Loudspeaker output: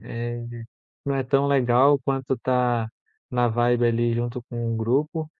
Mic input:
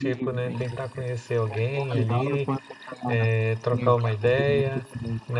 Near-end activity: present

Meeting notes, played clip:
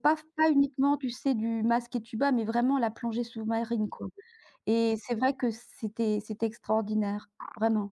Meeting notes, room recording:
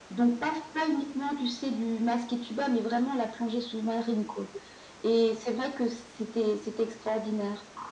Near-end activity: none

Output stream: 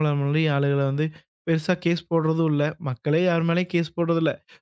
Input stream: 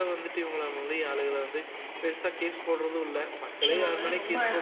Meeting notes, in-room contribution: present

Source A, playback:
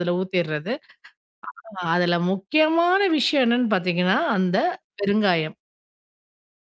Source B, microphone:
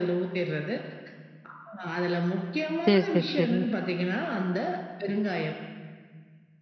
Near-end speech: present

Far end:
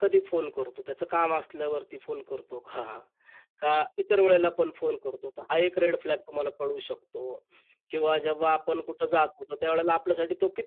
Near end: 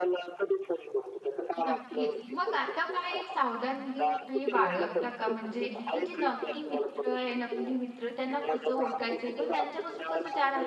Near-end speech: present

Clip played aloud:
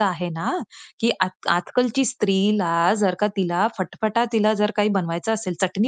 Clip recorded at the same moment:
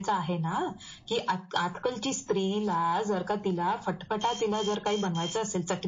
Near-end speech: none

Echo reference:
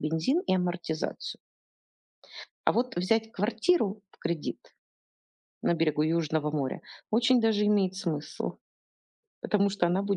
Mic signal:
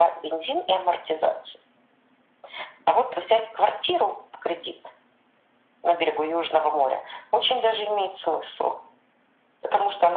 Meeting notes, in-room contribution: none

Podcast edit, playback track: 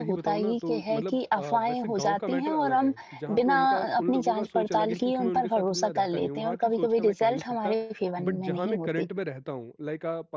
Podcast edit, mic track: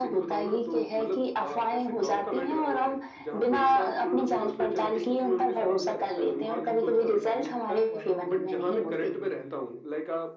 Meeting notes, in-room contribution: present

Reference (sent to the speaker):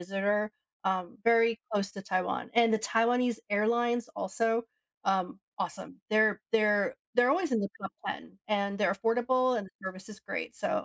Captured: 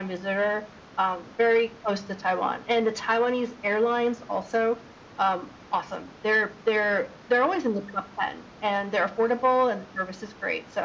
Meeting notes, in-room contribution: none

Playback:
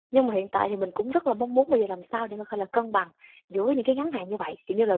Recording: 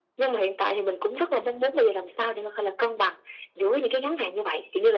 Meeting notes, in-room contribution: none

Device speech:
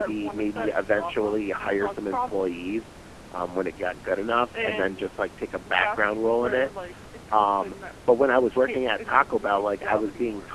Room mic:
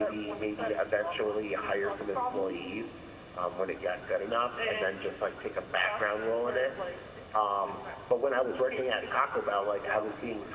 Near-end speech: present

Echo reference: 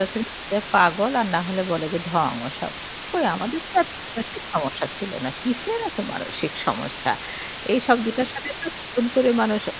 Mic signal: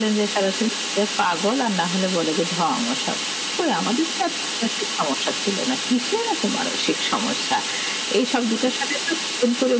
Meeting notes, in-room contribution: none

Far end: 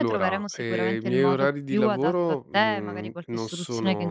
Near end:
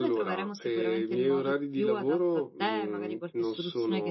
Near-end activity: none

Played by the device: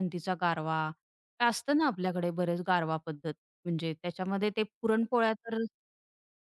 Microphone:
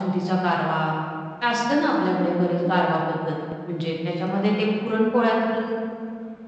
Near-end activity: none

